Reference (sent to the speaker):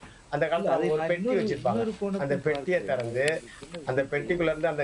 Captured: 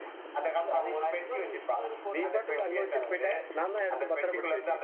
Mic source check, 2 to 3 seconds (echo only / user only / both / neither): both